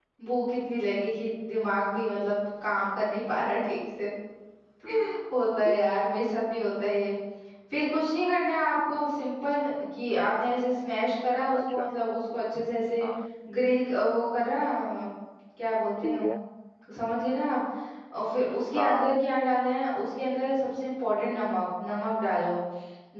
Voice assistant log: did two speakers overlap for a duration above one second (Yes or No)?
No